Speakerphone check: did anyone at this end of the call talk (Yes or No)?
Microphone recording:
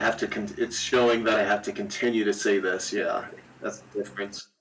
No